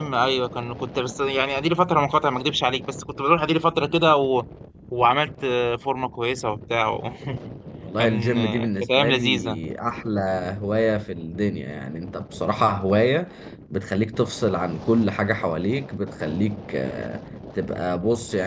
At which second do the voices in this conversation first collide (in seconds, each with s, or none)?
8.0 s